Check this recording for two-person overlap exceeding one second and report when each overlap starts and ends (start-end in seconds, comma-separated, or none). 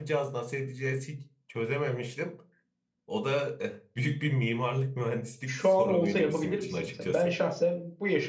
5.5-7.4